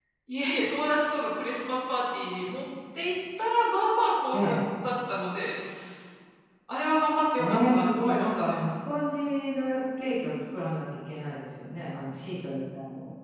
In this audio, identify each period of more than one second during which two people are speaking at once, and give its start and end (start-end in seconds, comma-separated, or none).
7.4-8.6